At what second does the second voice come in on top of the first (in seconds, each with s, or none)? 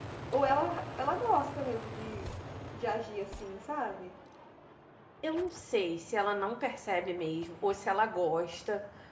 none